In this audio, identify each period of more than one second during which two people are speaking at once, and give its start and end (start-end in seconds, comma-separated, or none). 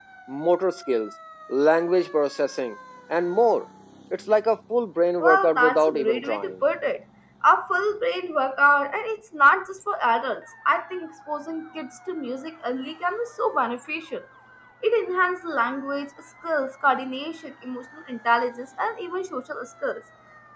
5.2-6.5